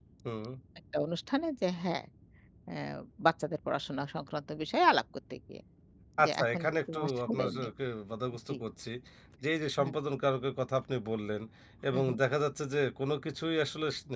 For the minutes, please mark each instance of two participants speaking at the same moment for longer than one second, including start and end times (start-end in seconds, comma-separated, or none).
6.2-7.7